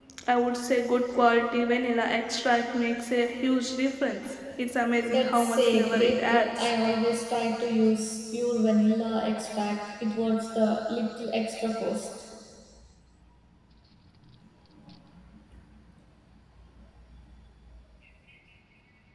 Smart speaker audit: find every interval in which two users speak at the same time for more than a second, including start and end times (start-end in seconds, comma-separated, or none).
5.1-6.7